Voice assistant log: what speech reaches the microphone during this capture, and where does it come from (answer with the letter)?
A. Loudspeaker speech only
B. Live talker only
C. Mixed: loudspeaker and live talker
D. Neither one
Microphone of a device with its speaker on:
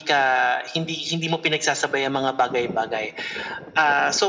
A